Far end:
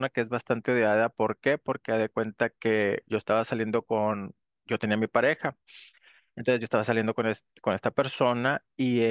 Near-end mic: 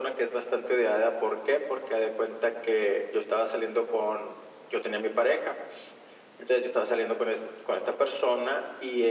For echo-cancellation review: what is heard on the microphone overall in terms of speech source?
echo only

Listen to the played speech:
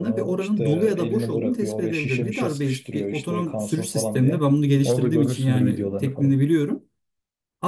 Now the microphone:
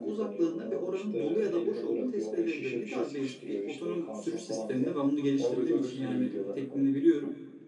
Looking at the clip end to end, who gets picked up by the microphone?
echo only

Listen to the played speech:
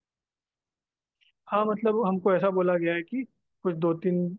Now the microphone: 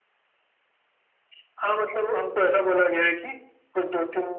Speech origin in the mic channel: echo only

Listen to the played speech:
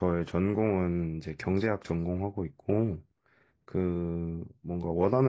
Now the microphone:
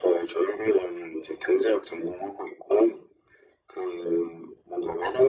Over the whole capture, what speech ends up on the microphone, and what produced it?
echo only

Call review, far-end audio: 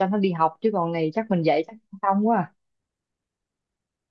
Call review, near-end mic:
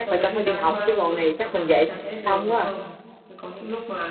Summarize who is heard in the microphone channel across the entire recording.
both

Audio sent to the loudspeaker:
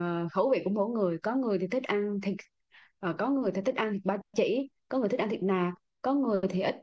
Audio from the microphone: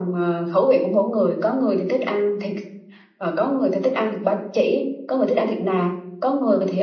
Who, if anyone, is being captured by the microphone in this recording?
echo only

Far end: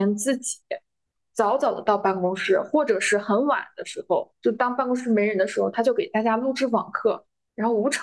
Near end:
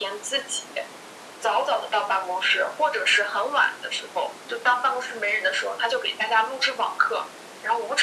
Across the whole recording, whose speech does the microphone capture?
echo only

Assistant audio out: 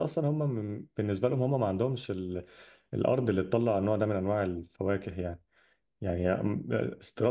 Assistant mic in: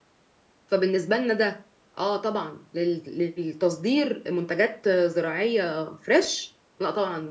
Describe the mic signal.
user only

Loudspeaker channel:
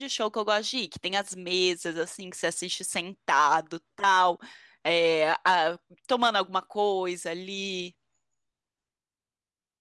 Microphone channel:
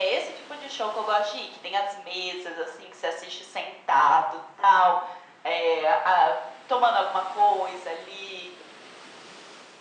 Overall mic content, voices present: echo only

